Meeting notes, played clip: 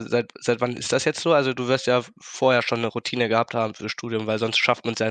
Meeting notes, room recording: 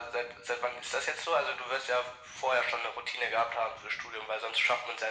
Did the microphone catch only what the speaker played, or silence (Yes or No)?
Yes